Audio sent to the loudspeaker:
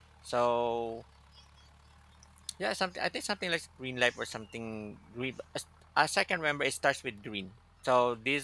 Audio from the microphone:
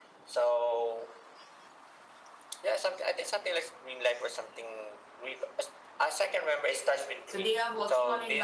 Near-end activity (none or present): present